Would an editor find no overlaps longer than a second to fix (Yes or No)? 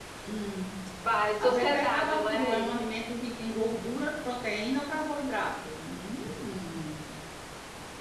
No